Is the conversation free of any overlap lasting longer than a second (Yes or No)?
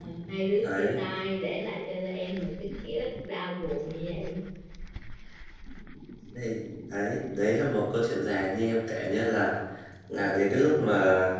Yes